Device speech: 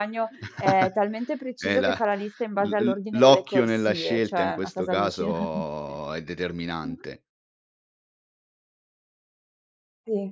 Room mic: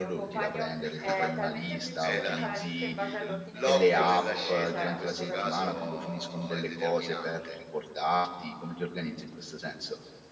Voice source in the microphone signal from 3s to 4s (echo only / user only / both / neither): both